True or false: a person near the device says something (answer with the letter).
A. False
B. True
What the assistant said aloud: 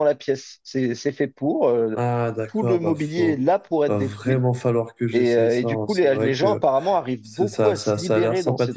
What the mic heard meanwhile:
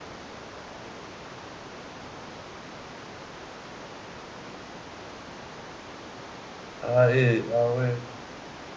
B